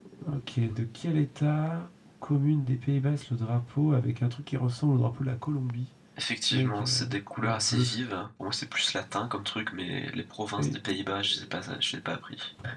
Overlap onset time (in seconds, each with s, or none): 6.5 s